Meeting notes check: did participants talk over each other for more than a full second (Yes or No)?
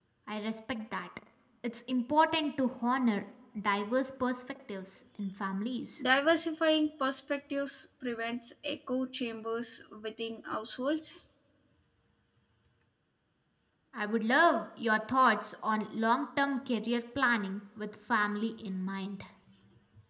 No